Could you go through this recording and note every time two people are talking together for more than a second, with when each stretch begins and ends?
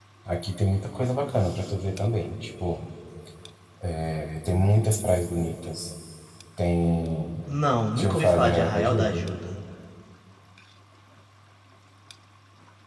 8.0-9.2

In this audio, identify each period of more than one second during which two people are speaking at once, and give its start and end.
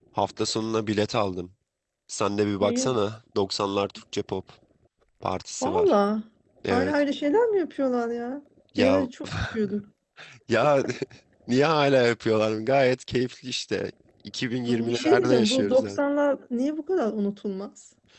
14.7-16.0

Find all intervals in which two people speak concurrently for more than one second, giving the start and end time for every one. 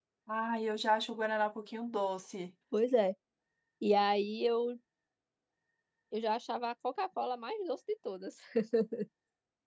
none

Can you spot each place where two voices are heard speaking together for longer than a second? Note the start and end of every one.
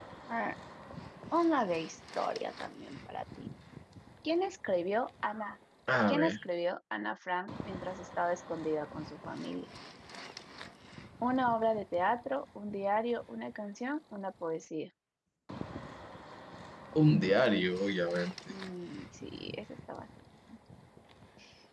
none

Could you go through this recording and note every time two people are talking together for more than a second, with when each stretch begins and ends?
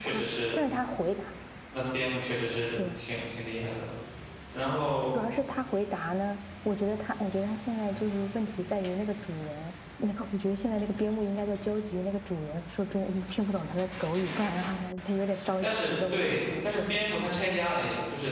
15.6-17.2

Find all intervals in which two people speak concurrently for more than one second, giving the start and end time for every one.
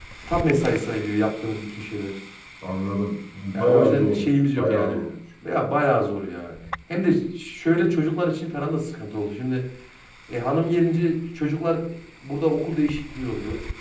3.5-5.0

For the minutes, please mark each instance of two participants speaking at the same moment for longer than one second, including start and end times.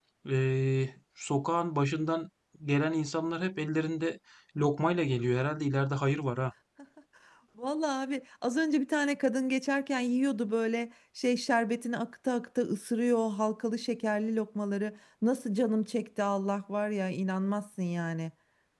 none

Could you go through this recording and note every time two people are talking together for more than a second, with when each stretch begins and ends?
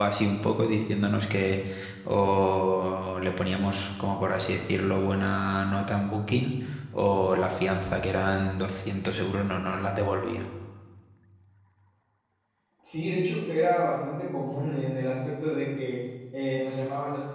none

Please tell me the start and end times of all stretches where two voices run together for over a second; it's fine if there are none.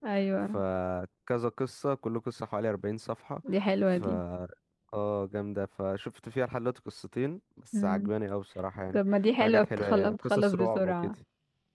9.4-11.1

